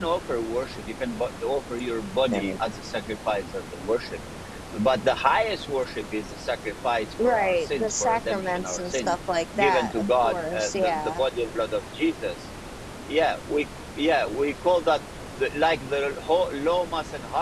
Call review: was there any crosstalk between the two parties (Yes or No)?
Yes